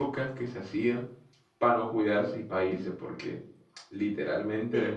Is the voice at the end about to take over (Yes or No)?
No